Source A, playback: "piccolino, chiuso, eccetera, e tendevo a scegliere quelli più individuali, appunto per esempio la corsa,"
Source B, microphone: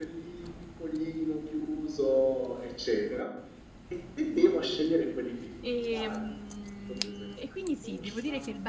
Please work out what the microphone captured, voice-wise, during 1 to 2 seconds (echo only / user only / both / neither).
echo only